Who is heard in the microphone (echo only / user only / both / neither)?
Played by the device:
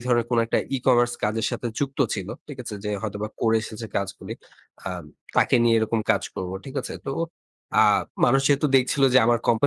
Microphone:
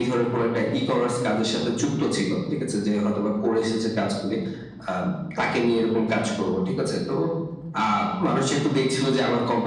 echo only